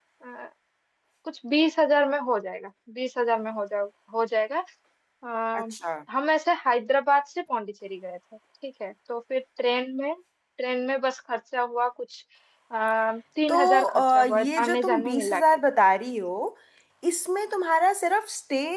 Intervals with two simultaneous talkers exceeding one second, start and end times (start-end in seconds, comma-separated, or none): 13.5-15.4